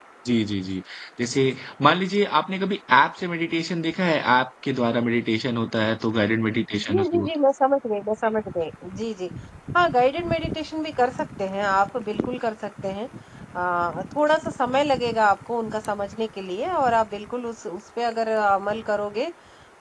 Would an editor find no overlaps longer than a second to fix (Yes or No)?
Yes